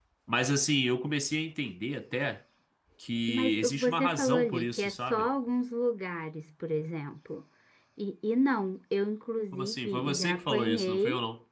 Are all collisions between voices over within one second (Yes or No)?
No